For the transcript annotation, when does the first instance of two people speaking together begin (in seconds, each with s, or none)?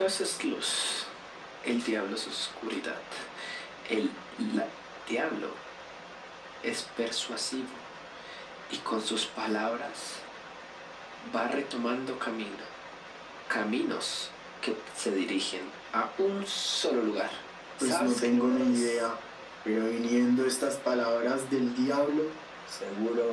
17.8 s